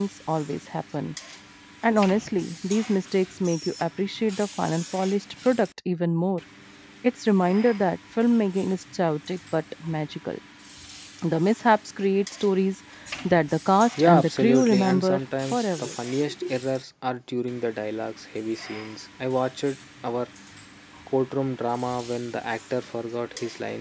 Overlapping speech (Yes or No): Yes